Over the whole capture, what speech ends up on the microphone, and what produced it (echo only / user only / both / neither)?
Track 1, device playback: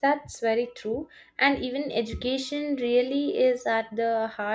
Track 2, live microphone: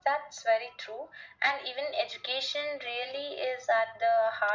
echo only